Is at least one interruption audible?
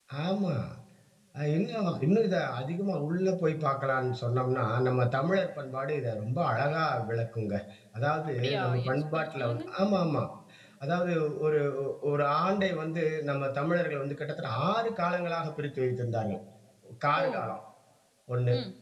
Yes, from 8.4 s

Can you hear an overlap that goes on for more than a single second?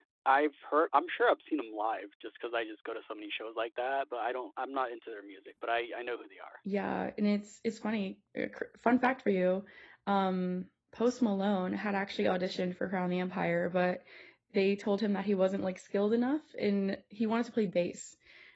No

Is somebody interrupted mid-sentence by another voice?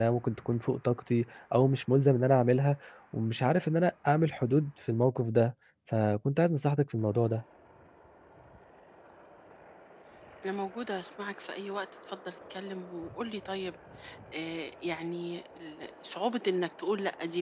No

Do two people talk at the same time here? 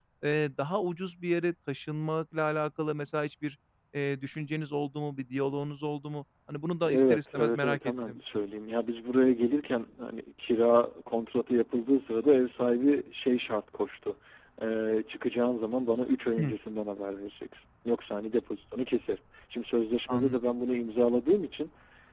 Yes, from 6.8 s

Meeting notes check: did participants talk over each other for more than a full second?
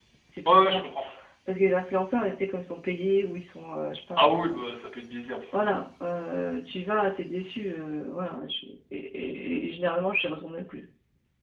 No

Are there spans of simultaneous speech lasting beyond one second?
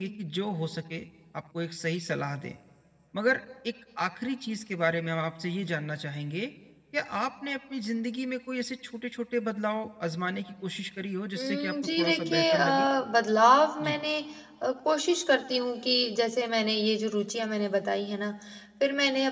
Yes, from 11.3 s

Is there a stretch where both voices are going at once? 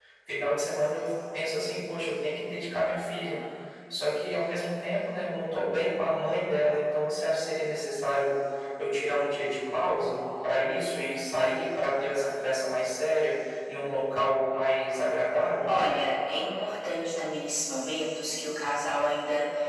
No

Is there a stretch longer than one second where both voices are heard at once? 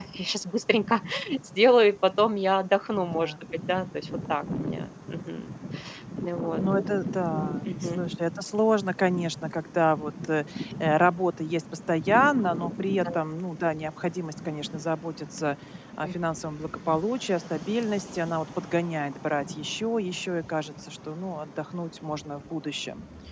No

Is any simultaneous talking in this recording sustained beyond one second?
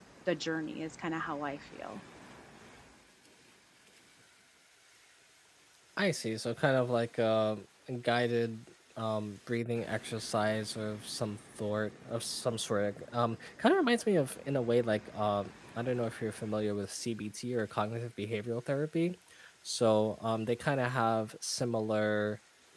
No

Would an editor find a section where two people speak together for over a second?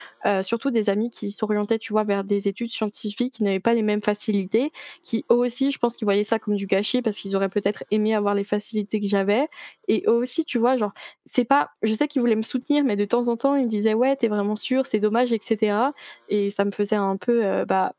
No

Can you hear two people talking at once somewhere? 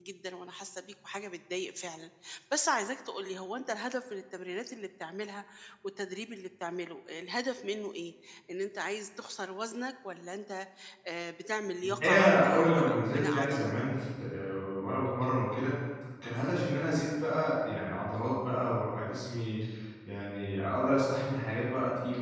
Yes, from 11.8 s

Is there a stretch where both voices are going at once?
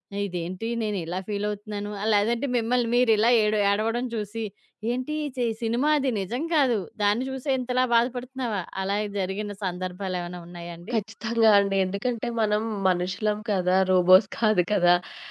No

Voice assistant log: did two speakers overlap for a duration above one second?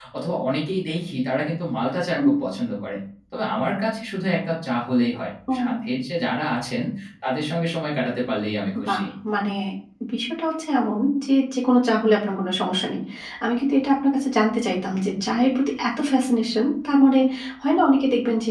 No

